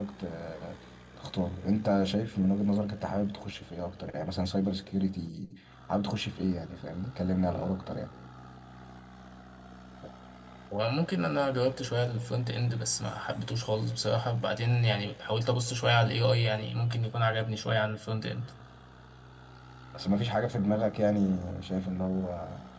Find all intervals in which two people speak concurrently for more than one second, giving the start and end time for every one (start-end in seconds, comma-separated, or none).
none